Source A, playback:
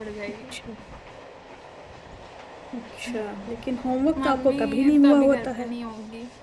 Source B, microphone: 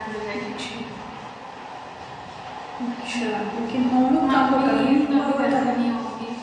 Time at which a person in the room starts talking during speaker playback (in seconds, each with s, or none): none